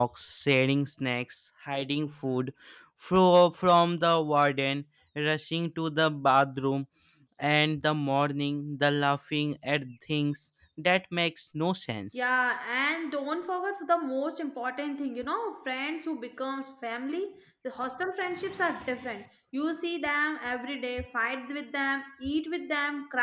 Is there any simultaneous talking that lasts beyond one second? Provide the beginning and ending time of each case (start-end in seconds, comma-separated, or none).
none